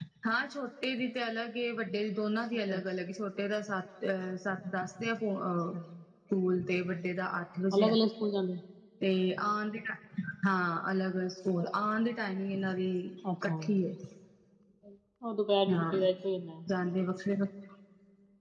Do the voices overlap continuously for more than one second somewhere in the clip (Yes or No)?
No